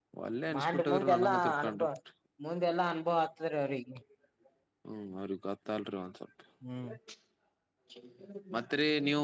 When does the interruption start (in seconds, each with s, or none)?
0.6 s